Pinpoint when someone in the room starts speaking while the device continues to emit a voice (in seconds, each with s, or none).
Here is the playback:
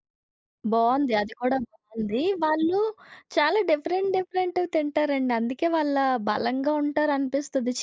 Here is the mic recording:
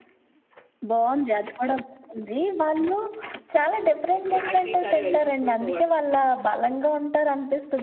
4.1 s